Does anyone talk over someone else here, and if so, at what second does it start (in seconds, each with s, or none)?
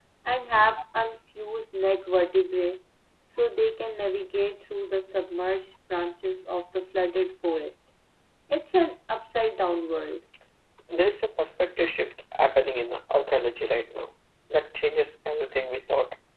none